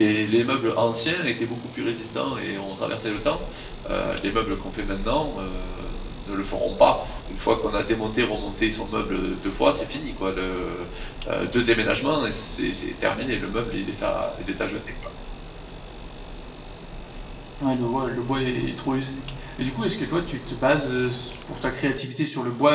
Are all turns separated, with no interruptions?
Yes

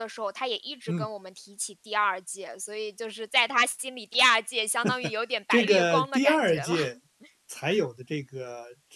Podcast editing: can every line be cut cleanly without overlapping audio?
No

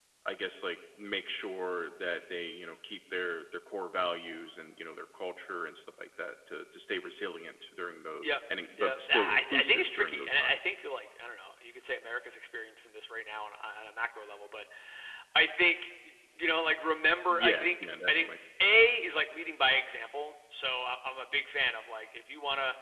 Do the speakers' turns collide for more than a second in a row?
Yes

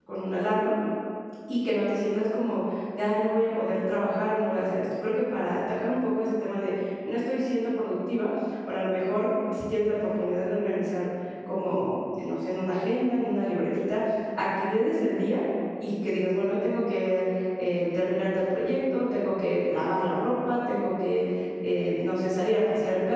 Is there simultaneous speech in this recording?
No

